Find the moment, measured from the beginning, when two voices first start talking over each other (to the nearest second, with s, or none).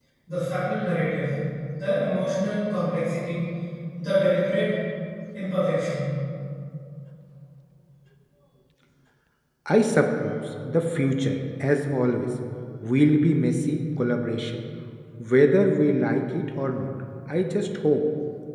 none